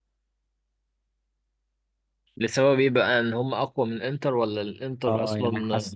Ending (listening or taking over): taking over